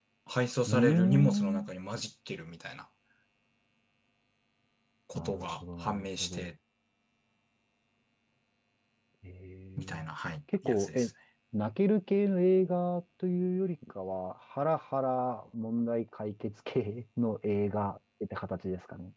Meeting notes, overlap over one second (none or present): present